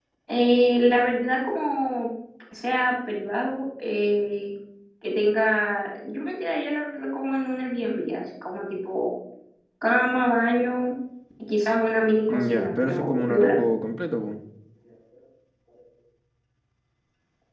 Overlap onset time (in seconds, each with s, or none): 12.3 s